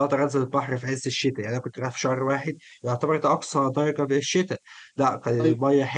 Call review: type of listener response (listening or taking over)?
listening